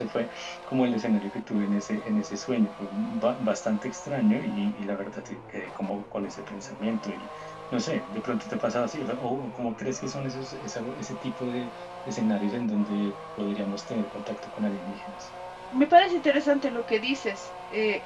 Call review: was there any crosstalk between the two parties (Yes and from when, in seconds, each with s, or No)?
No